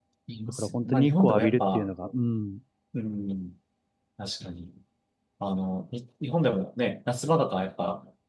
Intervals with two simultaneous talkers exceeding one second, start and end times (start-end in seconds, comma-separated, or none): 0.6-1.9